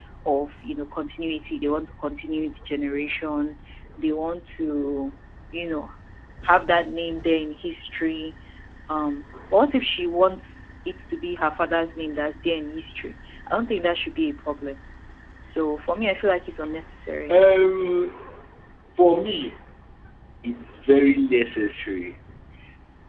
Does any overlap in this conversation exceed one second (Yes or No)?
No